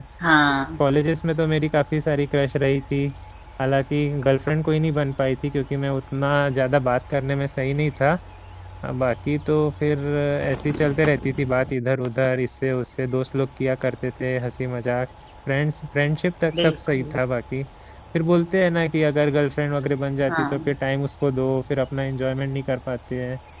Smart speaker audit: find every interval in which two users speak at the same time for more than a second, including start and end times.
none

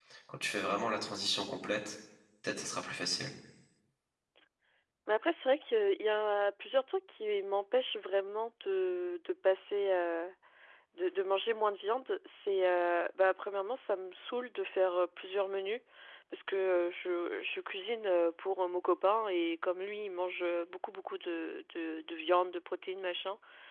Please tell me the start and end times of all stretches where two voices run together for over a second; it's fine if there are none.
none

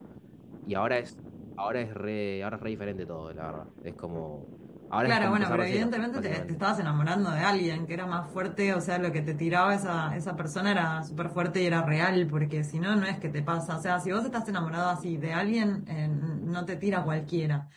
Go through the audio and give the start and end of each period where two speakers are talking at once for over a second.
5.0-6.6

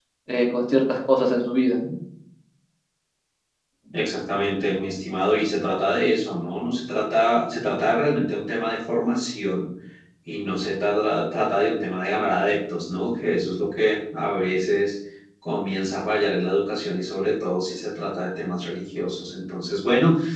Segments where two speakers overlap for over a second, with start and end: none

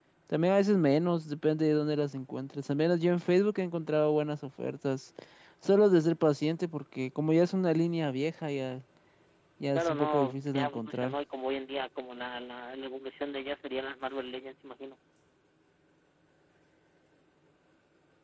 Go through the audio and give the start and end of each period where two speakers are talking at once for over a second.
9.7-11.2

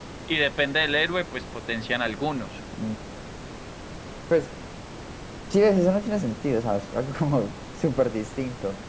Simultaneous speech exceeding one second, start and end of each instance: none

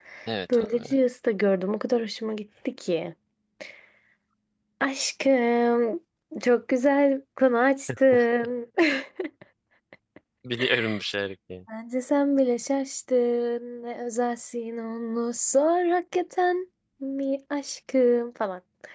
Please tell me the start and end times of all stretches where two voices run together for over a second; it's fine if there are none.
none

